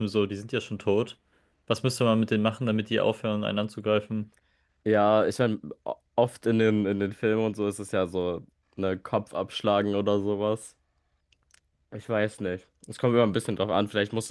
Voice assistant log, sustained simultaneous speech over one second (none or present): none